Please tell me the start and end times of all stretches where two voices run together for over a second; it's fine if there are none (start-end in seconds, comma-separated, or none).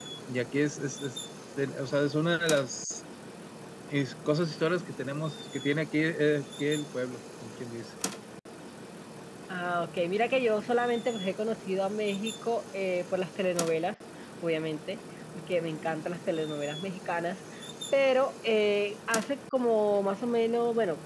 none